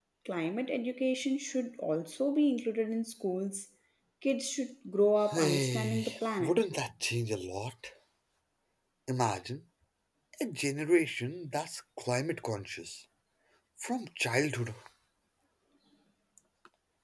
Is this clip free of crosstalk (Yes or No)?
No